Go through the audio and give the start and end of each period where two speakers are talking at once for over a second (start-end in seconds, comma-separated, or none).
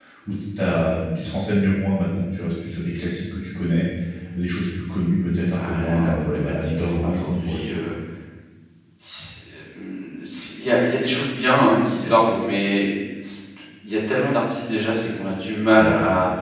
5.5-7.7